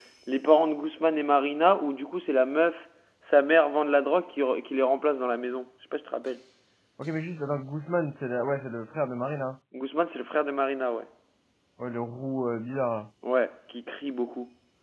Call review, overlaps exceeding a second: none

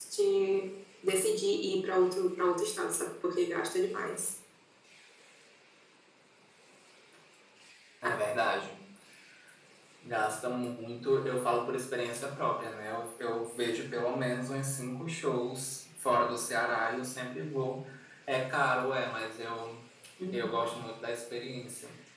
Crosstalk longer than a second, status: none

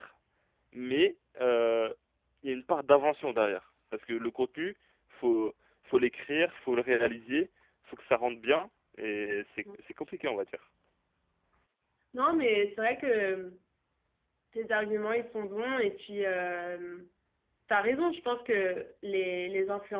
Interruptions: none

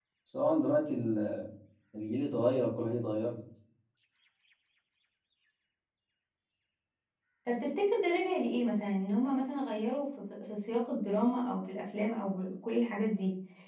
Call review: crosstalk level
none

